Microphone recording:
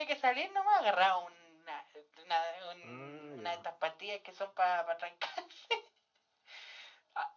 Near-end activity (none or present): present